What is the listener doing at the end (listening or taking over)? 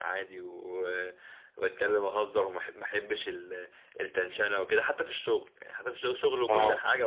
listening